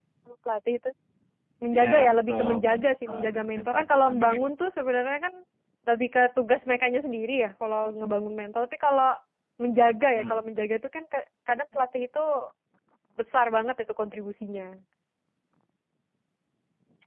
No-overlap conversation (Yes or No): No